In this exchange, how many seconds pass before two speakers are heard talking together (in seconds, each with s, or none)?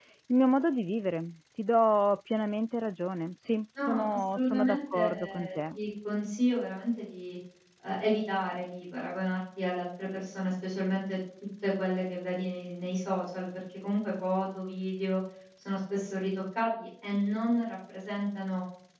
3.8 s